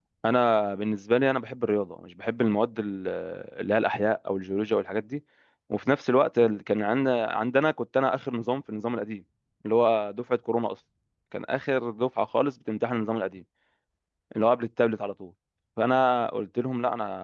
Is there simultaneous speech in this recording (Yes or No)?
No